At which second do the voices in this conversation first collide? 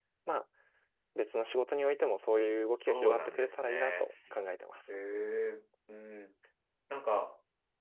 2.7 s

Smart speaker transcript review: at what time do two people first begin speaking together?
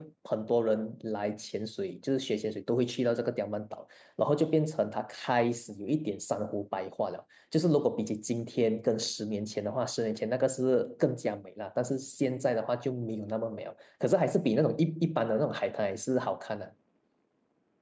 none

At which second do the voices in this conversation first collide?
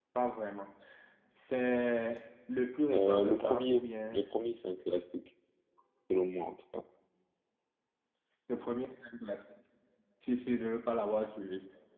2.9 s

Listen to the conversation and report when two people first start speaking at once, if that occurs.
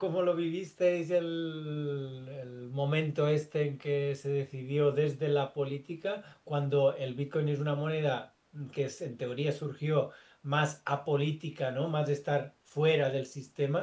none

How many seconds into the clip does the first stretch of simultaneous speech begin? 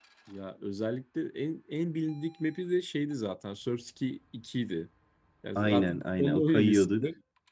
5.5 s

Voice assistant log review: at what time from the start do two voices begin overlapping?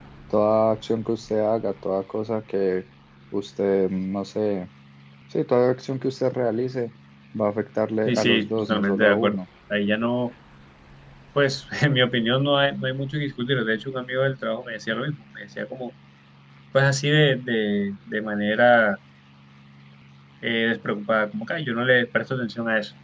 8.1 s

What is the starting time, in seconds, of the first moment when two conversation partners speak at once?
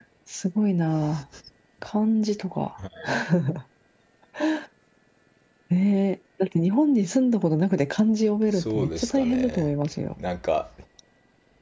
8.5 s

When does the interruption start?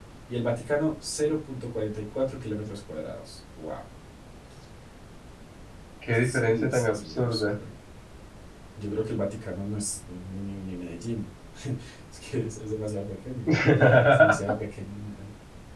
6.1 s

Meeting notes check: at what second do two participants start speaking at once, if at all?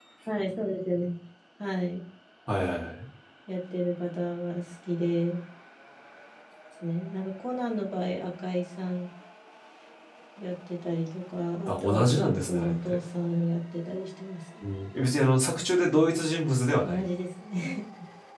11.7 s

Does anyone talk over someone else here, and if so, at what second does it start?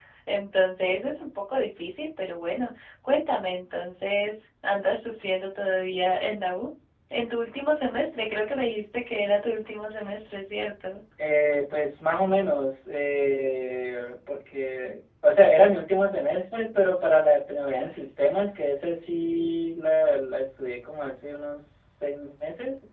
none

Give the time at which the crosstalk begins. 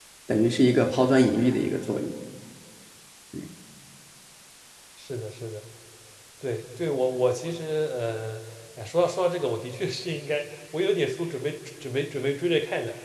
none

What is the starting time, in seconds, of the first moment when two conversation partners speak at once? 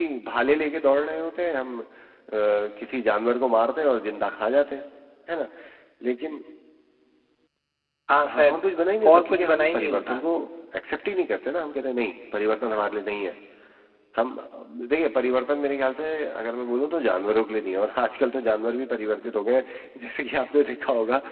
8.3 s

